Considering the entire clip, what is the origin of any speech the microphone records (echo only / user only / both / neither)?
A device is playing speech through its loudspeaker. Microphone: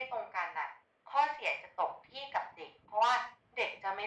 echo only